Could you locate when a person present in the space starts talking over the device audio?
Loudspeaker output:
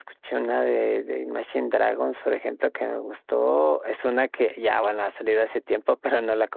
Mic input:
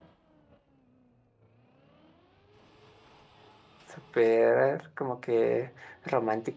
4 s

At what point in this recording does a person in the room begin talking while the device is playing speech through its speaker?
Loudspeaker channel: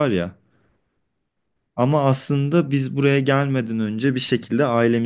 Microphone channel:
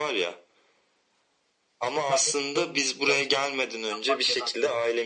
2 s

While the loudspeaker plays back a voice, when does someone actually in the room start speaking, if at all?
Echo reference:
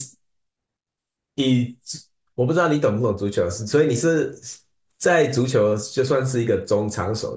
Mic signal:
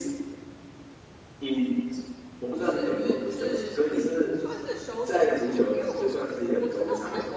2 s

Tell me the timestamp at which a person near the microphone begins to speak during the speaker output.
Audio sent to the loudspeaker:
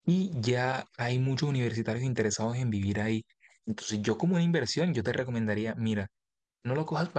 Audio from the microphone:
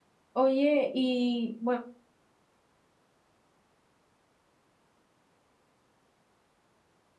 0 s

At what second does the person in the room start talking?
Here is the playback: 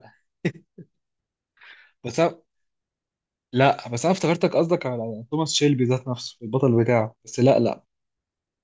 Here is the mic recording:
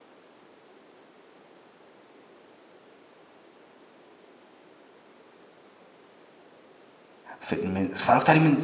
7 s

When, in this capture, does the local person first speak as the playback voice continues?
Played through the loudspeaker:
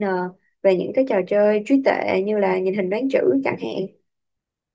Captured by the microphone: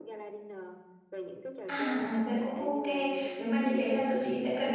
2 s

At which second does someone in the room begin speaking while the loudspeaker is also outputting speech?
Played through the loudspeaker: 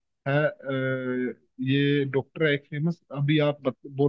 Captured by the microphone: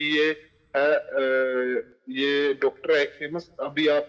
none

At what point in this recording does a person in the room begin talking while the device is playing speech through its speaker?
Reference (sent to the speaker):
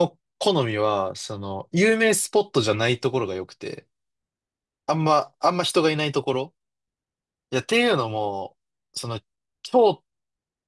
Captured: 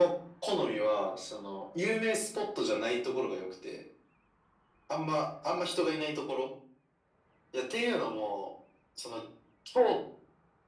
none

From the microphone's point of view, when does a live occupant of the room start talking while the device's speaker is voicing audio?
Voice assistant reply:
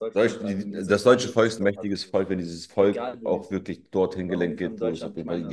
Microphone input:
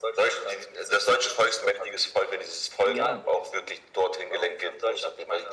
3 s

